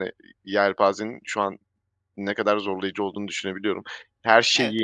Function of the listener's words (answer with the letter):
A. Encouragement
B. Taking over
A